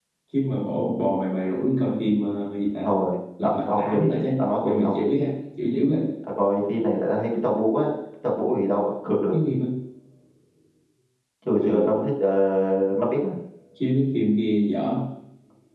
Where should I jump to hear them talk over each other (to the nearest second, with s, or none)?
3 s